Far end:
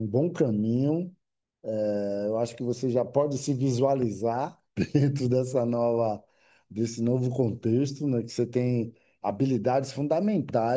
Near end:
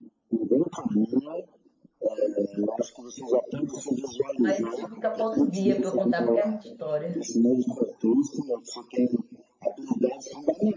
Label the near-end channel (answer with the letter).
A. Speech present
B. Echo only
A